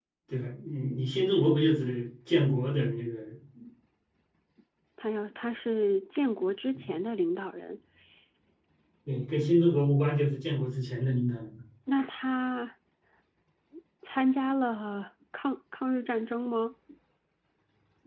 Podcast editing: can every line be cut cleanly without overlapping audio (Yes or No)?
Yes